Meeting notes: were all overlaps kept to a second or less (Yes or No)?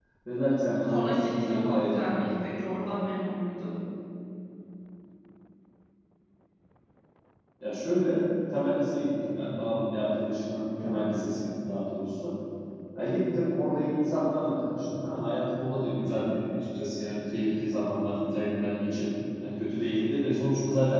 No